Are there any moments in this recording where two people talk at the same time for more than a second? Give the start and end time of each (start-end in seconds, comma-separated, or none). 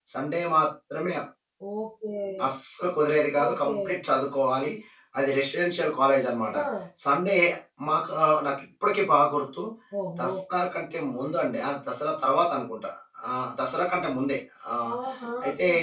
none